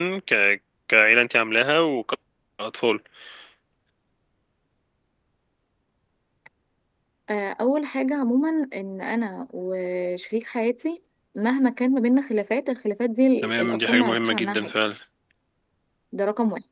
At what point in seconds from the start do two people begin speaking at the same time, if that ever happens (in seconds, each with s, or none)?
13.4 s